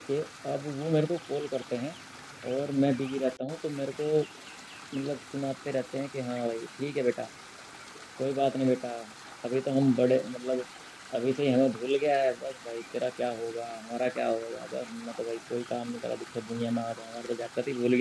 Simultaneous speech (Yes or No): No